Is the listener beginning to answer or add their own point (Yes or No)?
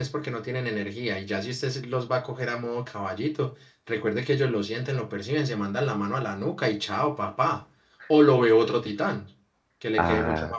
No